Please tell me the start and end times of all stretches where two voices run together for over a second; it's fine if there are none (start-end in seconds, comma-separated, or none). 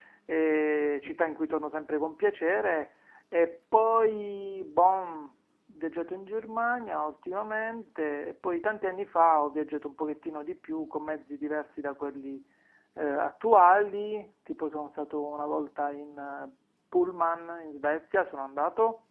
none